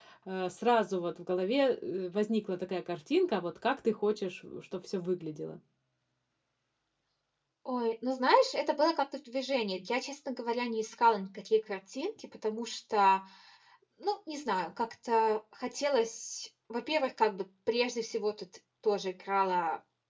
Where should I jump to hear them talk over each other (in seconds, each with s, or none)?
none